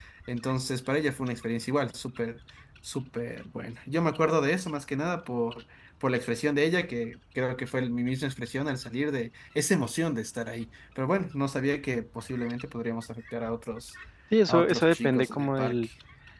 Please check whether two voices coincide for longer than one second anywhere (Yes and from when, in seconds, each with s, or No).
Yes, from 14.5 s